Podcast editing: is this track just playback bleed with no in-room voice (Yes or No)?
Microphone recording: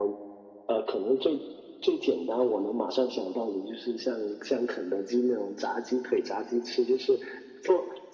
Yes